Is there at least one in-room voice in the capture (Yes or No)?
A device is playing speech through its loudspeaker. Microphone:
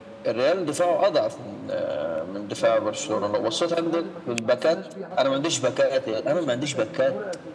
Yes